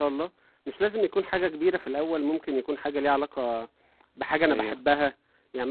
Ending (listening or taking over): listening